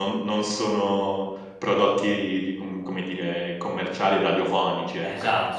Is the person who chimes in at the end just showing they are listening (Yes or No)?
No